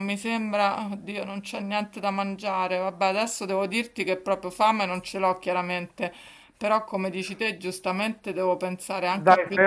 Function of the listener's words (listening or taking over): taking over